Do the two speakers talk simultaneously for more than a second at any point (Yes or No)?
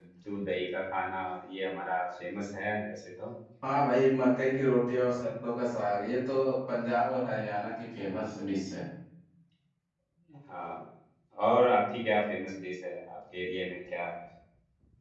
No